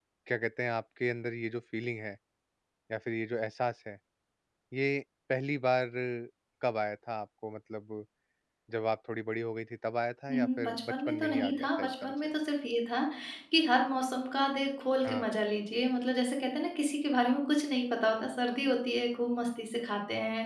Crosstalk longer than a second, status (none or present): present